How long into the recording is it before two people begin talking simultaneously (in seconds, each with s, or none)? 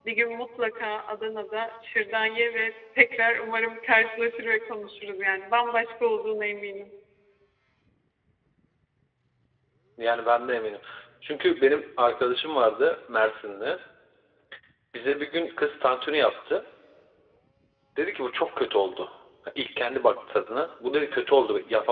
none